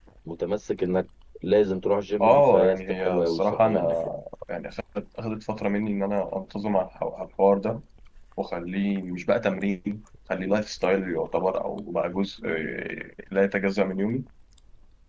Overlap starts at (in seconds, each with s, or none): 2.2 s